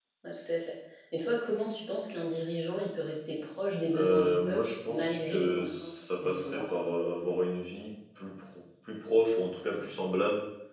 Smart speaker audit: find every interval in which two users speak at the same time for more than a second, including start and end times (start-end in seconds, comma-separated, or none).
3.9-6.6